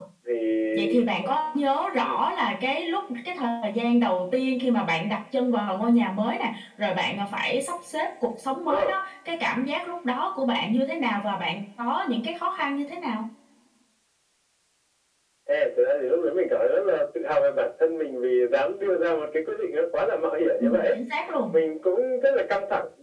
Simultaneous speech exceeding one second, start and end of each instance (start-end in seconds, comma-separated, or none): none